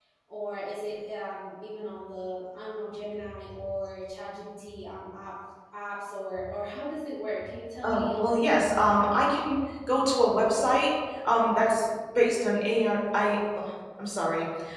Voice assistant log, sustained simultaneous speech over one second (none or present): present